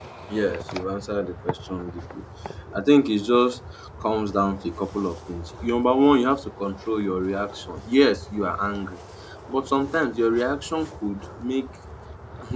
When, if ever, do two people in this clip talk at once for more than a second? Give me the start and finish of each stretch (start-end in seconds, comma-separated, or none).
none